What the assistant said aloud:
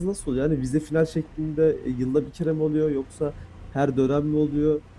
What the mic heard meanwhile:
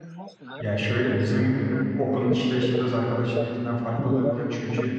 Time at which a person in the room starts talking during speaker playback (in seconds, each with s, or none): 0.6 s